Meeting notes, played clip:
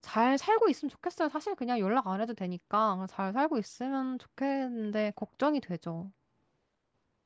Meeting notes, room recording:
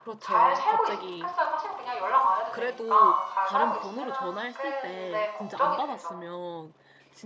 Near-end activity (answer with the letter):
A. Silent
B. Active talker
B